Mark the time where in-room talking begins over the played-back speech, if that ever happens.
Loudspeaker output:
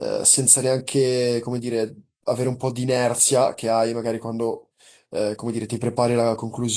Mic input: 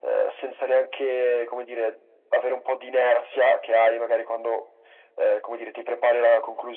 none

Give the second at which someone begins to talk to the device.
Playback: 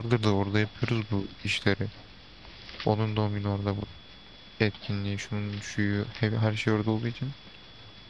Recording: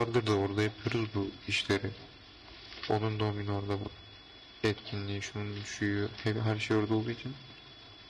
none

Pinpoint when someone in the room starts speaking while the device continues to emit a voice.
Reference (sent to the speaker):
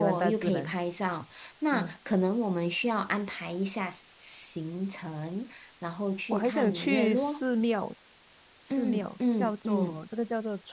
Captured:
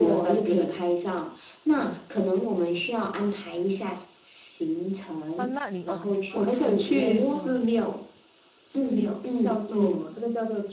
5 s

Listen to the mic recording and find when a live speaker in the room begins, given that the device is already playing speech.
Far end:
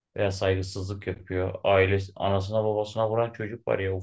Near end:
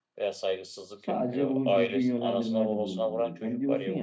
1 s

